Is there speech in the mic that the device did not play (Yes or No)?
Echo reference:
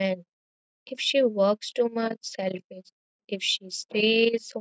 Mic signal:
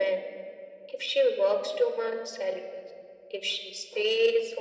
No